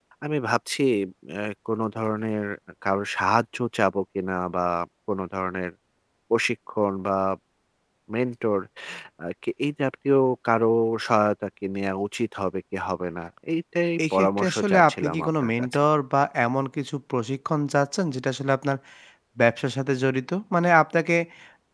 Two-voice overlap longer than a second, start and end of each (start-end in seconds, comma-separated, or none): 14.1-15.8